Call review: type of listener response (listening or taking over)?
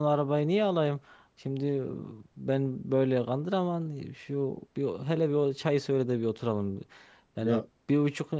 listening